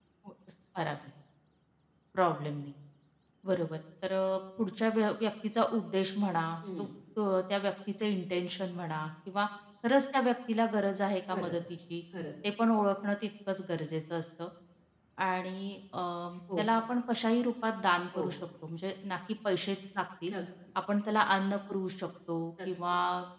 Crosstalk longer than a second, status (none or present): none